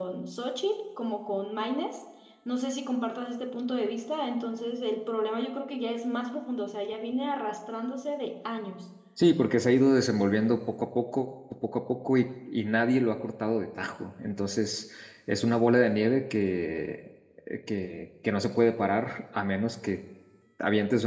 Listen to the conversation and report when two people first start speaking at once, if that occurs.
none

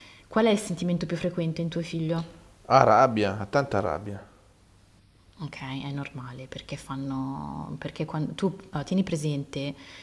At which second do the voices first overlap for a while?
none

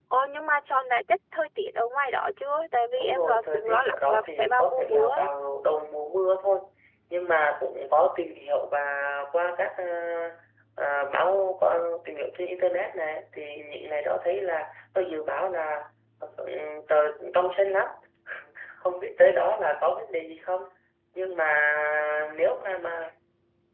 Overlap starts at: 3.0 s

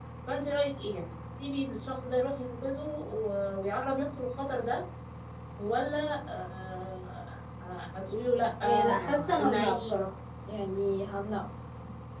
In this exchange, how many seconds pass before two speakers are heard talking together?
8.6 s

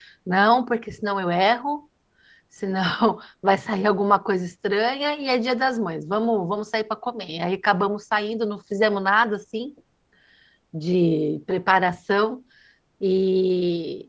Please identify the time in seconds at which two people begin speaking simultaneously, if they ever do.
none

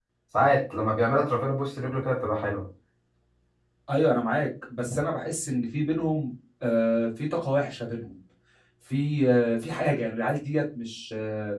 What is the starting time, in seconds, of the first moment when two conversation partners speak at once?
none

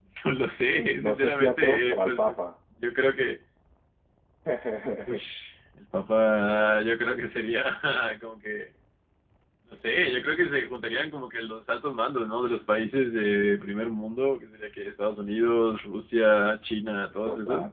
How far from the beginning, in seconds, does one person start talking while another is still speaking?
1.1 s

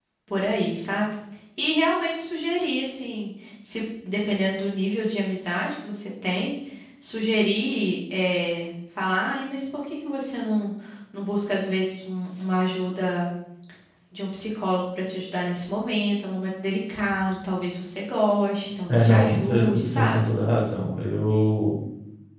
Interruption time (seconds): 18.9 s

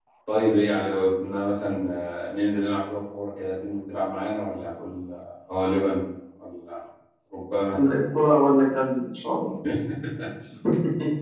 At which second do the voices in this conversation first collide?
none

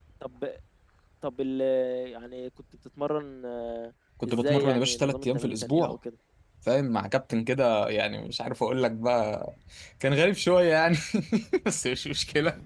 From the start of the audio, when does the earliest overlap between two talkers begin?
4.2 s

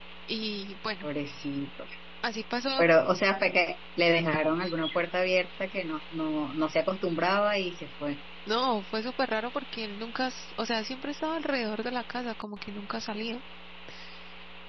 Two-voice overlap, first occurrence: none

